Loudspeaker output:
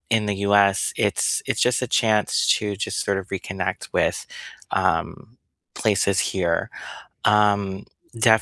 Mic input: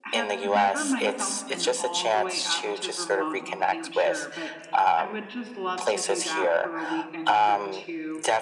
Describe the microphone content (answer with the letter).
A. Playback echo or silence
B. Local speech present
B